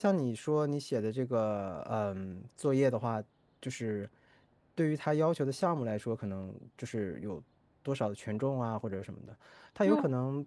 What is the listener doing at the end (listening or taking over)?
listening